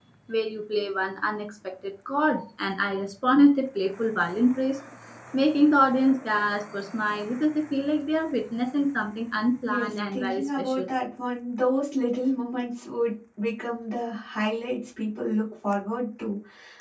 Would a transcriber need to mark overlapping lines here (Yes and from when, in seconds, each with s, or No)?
Yes, from 9.6 s